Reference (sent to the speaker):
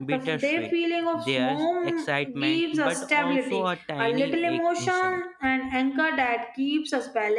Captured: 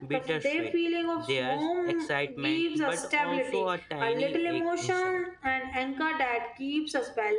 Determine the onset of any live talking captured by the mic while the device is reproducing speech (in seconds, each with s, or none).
none